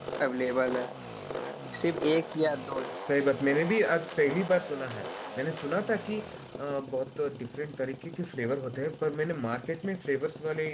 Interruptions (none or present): none